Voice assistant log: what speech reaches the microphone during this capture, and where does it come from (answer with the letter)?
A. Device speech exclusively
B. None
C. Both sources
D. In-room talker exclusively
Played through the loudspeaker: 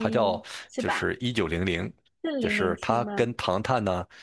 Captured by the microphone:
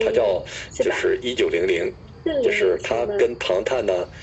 A